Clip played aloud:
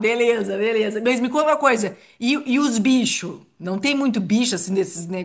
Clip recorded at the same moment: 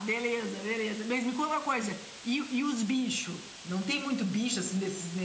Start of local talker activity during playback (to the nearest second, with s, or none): none